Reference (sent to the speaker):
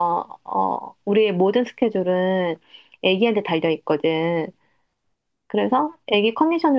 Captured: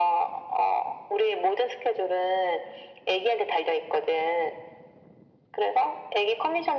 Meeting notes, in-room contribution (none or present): none